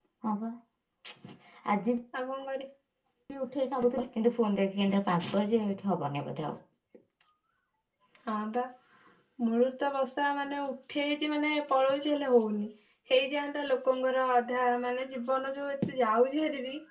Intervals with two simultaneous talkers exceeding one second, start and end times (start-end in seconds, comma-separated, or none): none